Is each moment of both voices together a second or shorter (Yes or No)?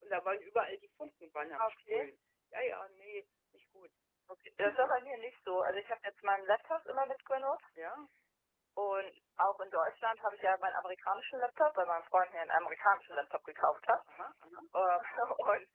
Yes